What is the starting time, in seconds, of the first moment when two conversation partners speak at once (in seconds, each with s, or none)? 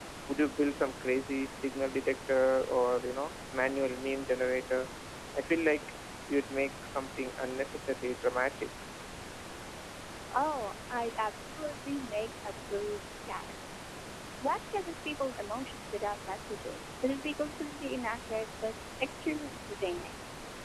none